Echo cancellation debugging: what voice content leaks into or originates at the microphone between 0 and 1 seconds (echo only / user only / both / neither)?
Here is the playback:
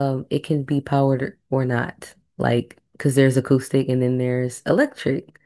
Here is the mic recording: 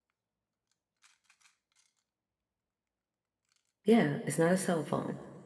neither